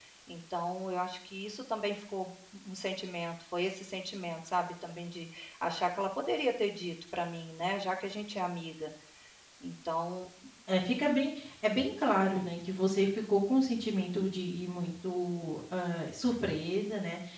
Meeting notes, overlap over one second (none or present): none